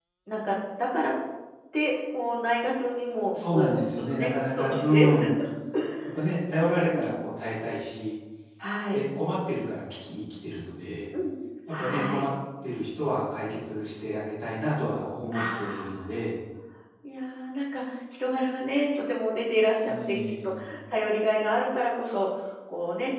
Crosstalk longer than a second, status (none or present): present